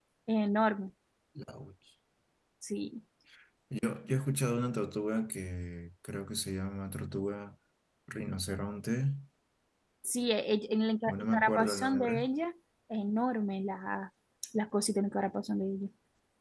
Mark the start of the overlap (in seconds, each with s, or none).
11.1 s